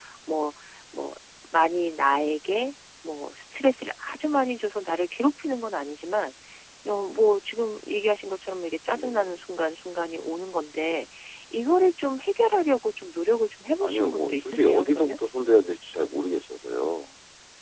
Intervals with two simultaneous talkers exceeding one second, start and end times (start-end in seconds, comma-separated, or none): 13.8-15.2